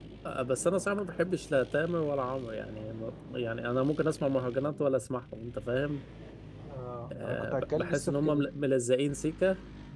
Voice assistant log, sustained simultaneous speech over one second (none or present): present